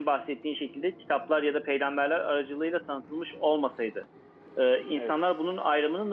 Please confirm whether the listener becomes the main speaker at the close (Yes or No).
No